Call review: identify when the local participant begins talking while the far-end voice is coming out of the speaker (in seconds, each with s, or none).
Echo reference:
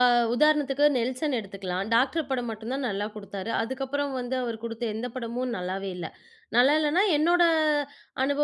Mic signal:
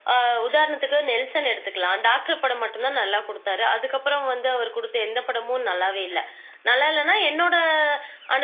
none